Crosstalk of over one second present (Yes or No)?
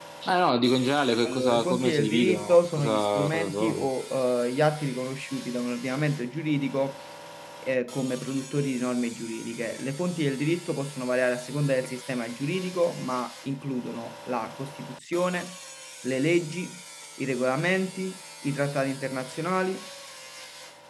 Yes